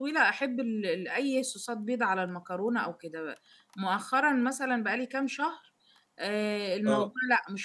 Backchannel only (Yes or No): Yes